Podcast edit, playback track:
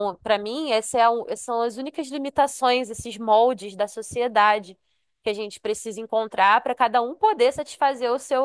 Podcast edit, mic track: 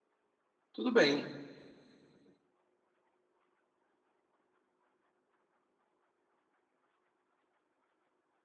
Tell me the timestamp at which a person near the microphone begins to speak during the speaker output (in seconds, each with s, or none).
0.7 s